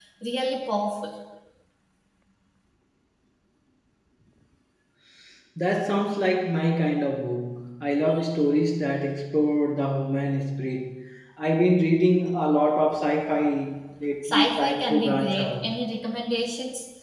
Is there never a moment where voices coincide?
No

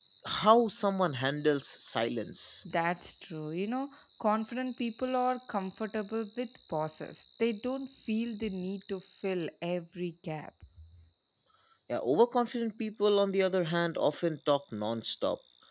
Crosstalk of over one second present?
No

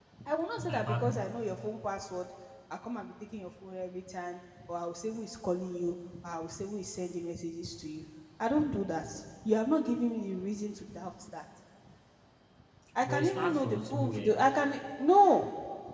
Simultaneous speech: Yes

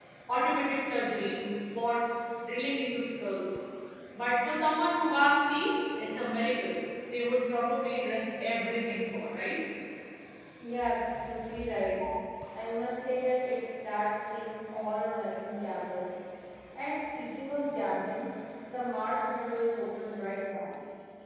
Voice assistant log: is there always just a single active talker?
Yes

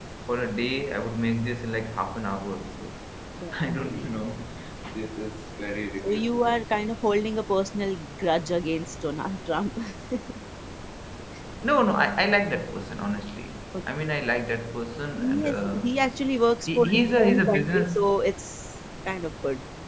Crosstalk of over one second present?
Yes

